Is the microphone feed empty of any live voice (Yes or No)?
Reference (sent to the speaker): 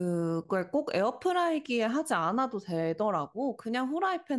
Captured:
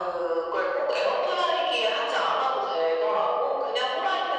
Yes